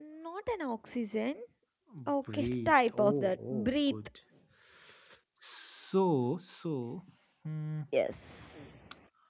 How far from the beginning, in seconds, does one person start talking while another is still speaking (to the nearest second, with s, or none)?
2 s